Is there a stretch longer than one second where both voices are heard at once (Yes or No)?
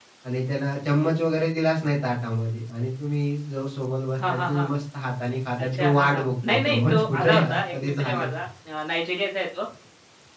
Yes